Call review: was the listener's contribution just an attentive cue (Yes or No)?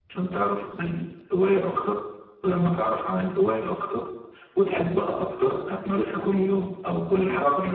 No